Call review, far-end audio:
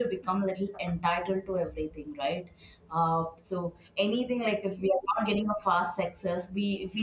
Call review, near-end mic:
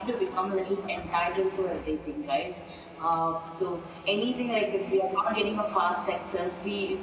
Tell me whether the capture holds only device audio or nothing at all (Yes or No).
Yes